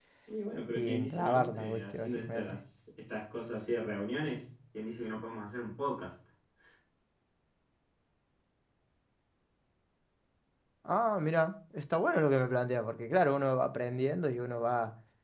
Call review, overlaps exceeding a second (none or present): present